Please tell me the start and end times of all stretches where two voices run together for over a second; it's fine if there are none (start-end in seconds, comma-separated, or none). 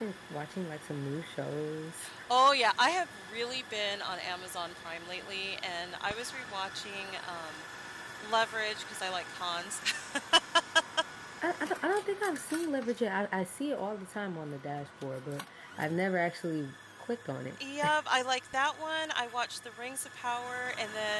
none